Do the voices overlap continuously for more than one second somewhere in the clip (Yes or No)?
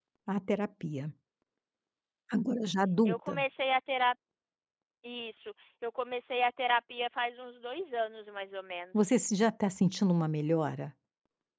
No